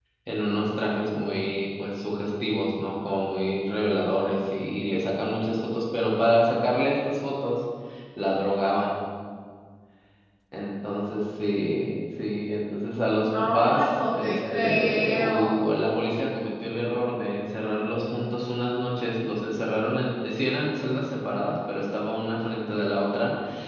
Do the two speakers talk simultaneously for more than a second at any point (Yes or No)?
Yes